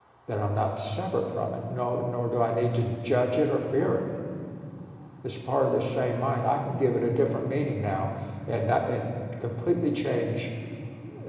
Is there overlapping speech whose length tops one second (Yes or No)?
No